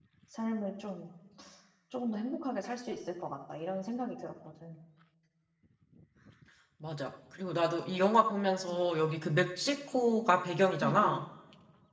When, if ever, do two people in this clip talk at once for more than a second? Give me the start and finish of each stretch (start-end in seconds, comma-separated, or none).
none